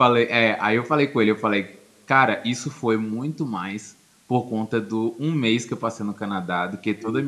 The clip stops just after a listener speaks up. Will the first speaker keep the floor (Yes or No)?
Yes